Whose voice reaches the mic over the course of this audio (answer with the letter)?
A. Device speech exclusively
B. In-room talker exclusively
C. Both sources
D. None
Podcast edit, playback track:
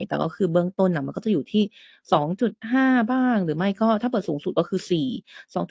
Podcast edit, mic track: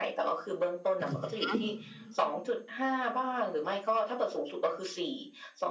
C